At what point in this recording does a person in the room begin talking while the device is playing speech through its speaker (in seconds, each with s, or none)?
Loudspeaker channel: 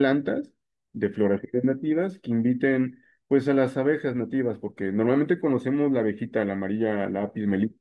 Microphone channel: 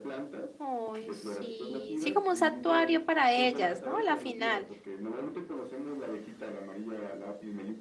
0.6 s